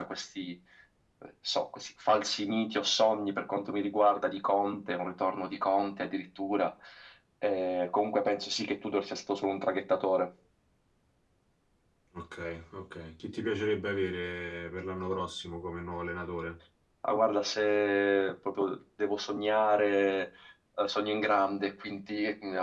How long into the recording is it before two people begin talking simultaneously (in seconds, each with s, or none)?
none